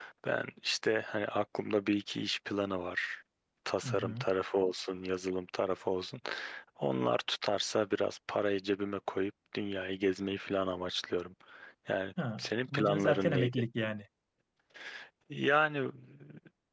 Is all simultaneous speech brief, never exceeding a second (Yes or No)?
No